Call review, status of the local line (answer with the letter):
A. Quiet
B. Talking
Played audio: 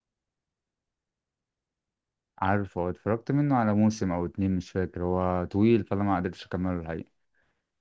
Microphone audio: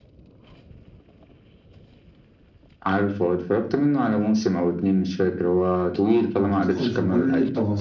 B